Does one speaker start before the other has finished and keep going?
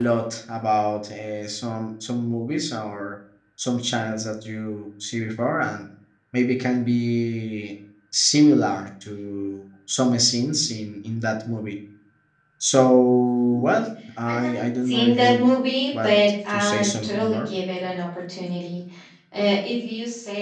Yes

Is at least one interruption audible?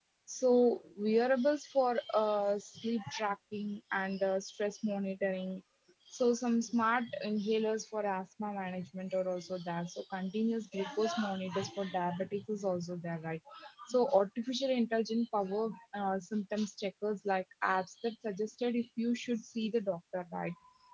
No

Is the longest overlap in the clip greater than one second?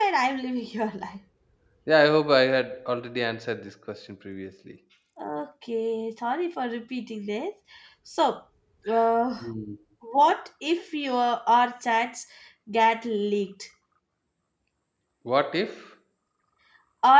No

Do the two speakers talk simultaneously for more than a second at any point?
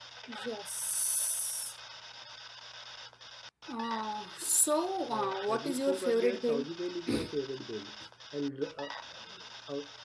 Yes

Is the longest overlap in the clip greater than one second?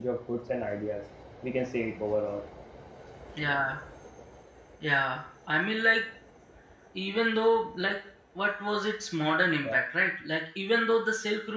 No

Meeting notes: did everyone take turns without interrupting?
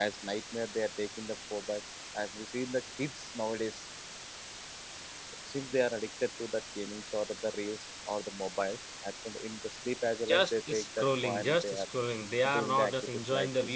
No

